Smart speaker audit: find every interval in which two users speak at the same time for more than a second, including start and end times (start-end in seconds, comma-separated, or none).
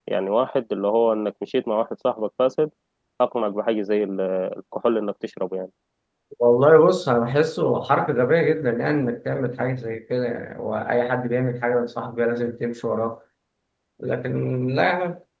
none